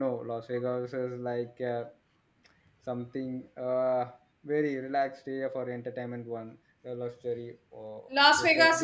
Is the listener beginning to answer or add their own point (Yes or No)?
Yes